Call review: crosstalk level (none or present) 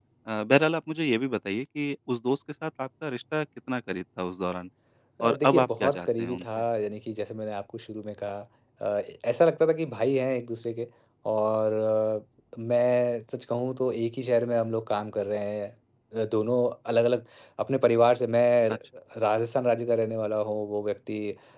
present